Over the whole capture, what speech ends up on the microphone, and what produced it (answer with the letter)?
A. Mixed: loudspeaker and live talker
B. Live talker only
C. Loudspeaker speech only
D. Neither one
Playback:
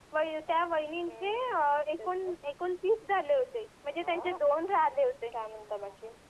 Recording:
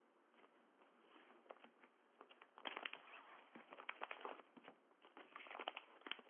D